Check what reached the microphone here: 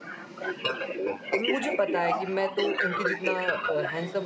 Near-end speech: present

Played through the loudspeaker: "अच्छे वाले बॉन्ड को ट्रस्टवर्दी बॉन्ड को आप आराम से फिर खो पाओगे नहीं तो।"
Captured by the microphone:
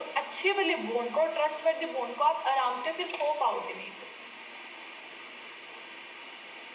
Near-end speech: none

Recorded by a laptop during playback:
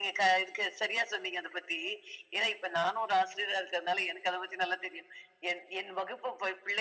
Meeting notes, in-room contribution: none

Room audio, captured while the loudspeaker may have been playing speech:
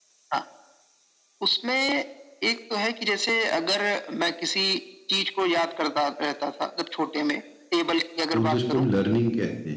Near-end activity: present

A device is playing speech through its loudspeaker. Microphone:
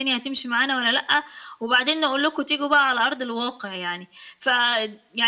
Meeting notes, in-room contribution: none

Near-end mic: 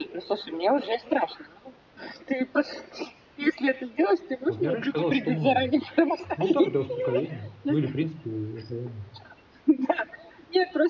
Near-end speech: present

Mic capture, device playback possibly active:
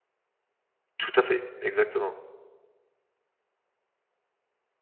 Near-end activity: present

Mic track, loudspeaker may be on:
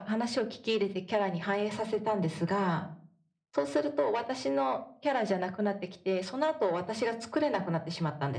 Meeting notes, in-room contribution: none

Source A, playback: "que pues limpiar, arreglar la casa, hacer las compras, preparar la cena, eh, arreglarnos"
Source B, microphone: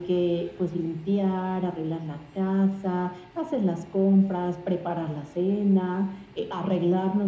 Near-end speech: none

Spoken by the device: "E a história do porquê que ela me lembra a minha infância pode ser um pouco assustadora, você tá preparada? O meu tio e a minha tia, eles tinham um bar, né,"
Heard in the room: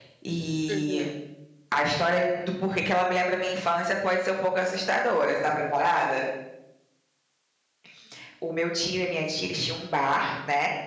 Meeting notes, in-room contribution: present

